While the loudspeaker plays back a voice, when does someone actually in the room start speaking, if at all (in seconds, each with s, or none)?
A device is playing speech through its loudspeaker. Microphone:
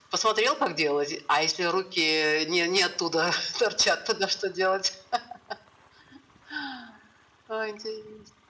none